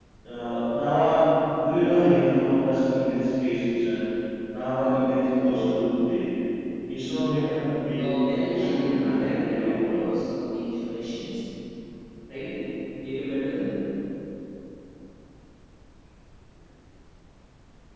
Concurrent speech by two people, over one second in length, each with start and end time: 8.5-10.1

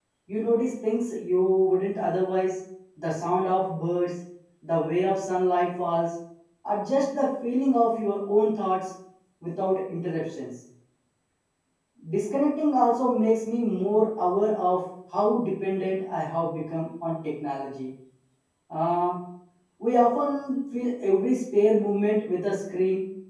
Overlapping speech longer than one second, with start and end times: none

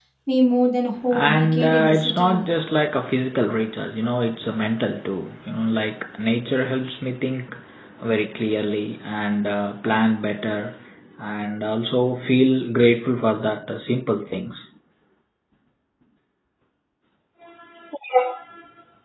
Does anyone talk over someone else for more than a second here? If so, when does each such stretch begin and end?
1.1-2.4

